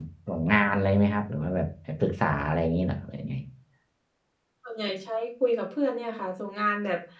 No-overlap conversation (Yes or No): Yes